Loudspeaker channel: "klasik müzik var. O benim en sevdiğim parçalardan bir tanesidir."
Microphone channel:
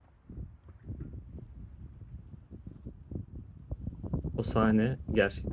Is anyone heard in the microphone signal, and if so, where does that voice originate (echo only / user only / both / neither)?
user only